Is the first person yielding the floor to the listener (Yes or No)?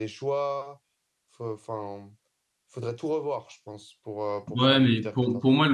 Yes